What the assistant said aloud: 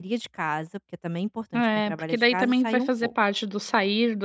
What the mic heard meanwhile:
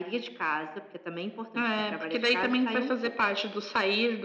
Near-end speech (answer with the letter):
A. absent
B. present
A